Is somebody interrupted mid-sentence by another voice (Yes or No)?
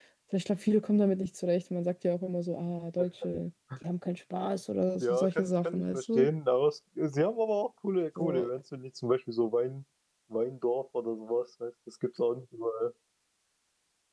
Yes